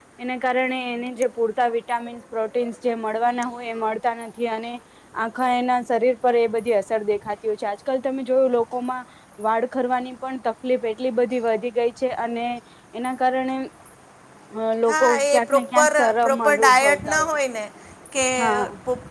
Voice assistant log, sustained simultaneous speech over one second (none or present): present